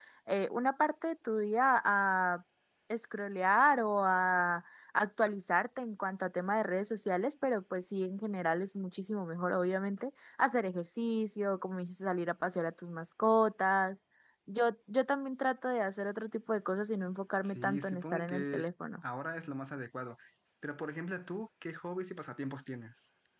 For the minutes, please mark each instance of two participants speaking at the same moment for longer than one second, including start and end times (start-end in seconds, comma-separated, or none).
17.4-18.6